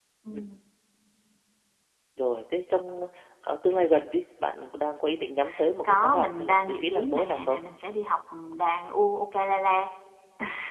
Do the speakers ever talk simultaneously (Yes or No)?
Yes